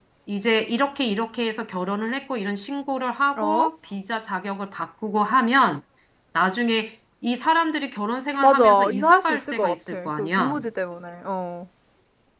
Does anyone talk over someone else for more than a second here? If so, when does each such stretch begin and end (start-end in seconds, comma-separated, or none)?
8.4-10.6